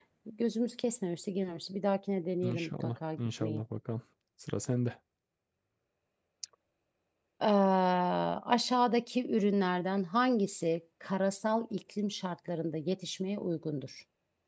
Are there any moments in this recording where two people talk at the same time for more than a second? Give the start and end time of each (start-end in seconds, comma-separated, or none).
2.4-3.6